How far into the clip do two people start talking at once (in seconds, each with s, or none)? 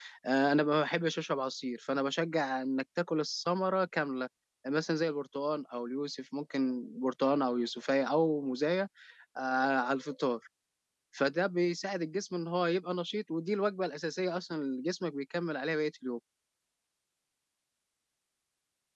none